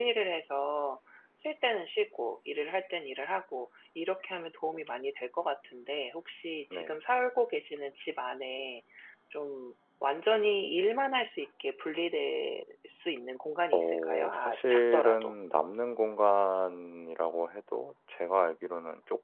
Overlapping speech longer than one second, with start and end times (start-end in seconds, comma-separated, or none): 13.7-15.3